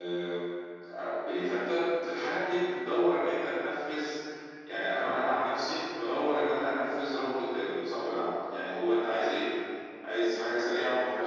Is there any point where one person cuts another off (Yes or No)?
No